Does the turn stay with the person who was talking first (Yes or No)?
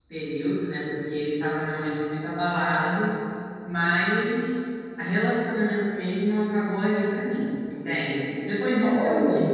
Yes